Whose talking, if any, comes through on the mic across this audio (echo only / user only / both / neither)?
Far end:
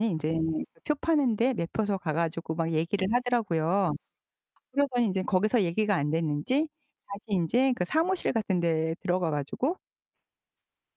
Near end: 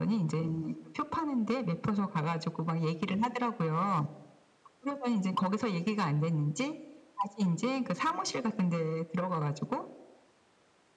echo only